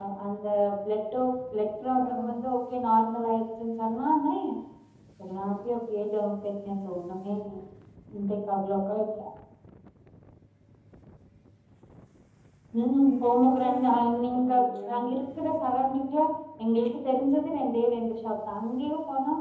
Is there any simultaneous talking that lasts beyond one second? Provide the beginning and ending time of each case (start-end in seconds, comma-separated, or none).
13.1-14.9